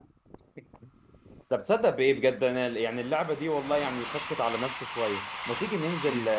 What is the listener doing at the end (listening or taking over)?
listening